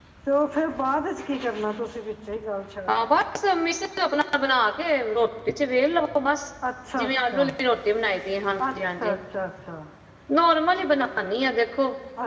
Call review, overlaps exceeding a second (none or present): none